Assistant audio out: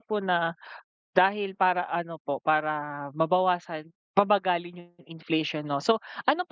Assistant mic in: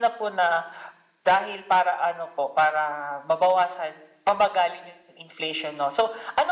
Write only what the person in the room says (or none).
none